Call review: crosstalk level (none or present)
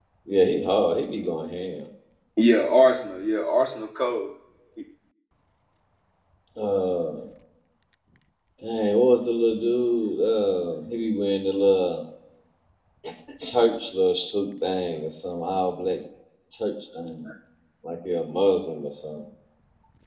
none